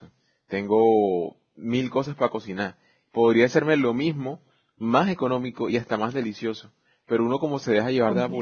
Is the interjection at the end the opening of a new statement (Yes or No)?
No